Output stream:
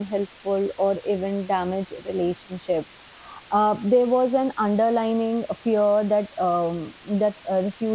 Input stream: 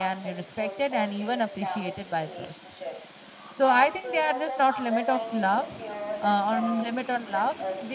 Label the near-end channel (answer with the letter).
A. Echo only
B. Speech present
B